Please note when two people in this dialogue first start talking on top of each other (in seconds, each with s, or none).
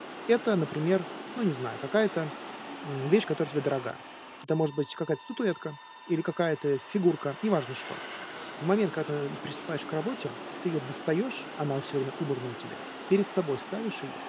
none